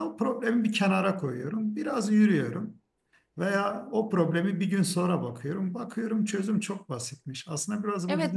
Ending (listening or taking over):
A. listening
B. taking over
B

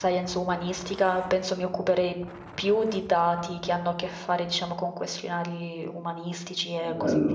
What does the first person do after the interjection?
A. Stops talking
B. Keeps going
A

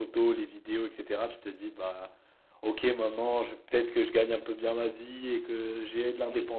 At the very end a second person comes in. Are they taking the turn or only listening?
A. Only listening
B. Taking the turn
A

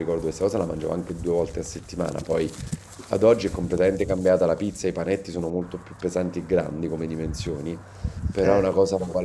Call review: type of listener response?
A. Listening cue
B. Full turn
A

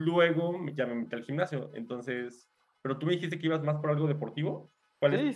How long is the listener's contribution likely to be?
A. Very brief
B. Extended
B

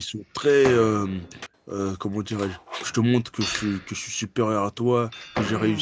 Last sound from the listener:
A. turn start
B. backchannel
B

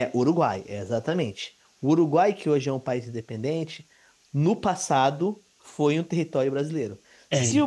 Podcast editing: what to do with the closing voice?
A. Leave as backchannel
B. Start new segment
A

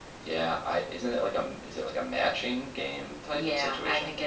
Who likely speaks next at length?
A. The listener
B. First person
A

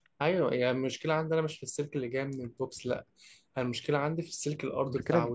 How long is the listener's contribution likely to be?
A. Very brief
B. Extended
B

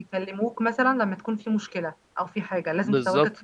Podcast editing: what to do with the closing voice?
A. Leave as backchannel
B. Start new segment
B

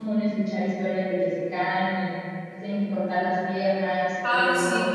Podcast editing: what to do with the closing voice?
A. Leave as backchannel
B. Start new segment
B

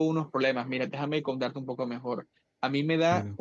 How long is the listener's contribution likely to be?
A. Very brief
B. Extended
A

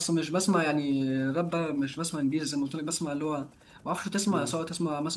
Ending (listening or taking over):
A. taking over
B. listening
B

